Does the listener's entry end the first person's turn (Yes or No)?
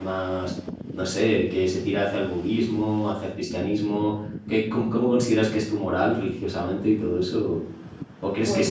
No